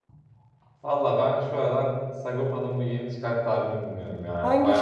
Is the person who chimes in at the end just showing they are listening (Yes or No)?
No